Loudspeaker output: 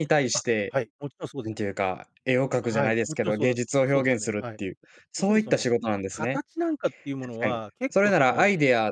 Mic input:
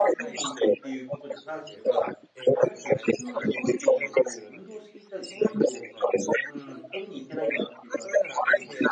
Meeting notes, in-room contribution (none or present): present